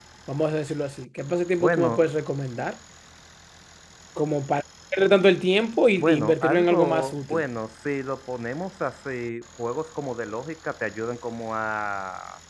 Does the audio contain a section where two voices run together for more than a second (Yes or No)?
Yes